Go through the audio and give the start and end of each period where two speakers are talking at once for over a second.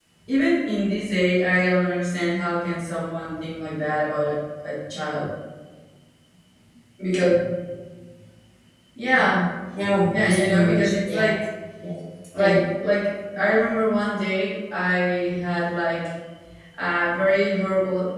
10.1-11.3

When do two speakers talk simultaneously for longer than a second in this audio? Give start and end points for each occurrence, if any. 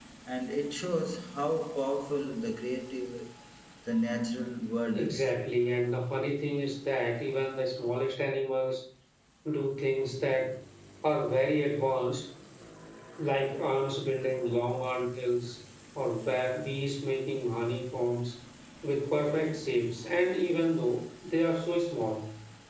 none

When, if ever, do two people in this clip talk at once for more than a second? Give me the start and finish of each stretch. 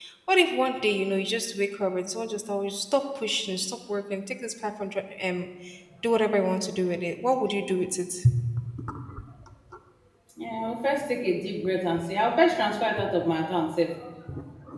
none

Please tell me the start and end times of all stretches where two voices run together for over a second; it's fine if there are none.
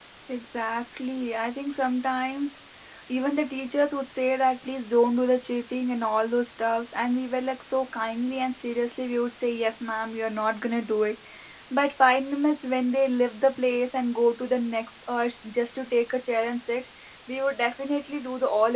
none

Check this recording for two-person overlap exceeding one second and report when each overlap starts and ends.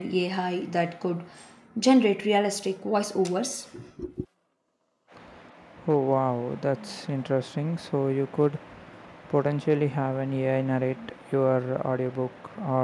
none

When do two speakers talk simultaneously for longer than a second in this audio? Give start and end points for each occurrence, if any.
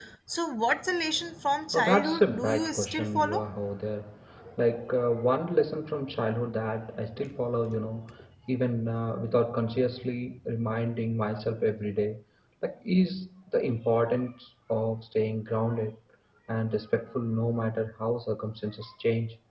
1.7-3.5

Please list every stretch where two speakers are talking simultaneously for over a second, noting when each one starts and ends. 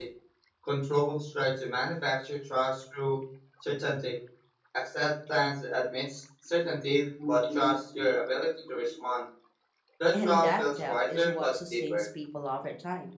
10.1-12.0

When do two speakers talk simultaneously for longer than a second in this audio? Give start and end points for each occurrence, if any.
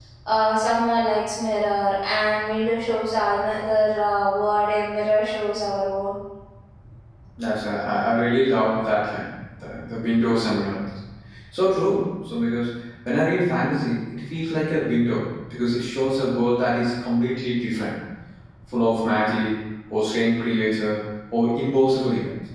none

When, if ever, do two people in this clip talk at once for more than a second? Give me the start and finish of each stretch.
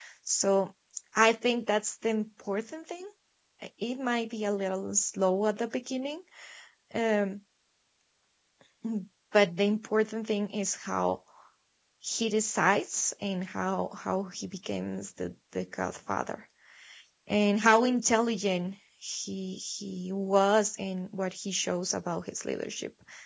none

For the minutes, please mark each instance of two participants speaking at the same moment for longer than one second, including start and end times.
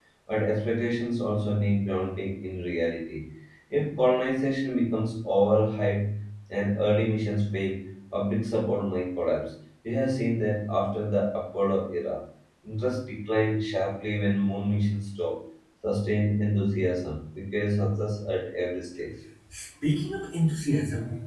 none

